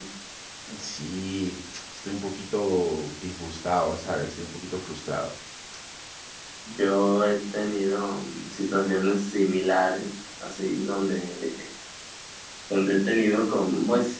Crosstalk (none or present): none